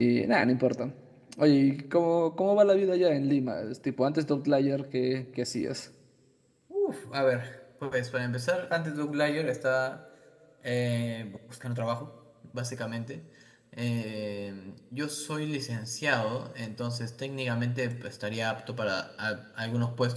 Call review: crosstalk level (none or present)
none